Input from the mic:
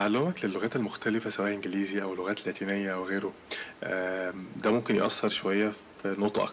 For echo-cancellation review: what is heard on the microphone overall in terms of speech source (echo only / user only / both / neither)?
echo only